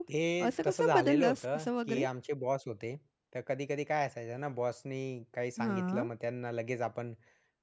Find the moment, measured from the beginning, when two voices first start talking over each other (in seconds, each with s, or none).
0.6 s